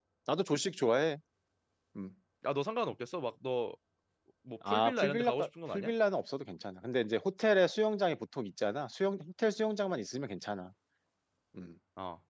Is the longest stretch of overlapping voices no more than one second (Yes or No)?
No